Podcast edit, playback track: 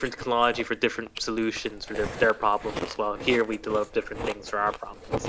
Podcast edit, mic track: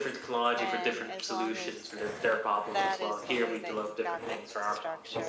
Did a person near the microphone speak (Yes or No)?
Yes